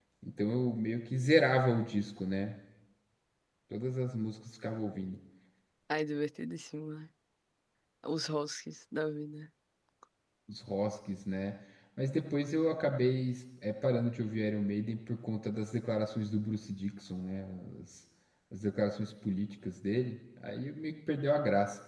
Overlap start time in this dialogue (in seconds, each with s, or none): none